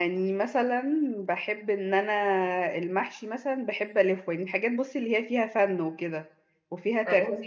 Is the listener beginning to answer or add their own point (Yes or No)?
No